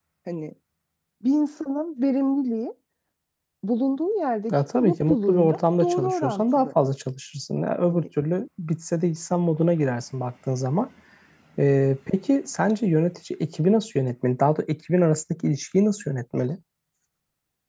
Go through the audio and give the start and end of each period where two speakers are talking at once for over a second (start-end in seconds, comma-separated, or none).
4.7-6.7